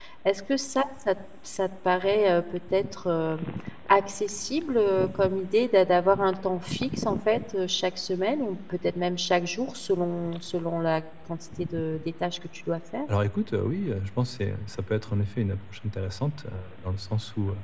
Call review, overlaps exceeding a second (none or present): none